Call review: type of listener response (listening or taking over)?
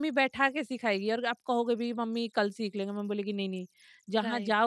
taking over